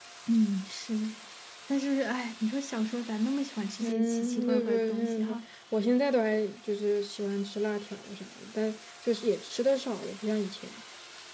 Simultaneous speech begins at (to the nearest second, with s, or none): 4 s